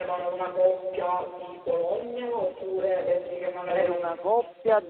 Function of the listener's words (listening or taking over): taking over